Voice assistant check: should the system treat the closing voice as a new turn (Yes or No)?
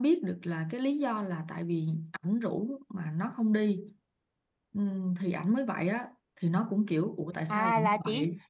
Yes